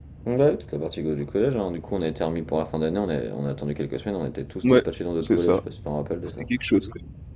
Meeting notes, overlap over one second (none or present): none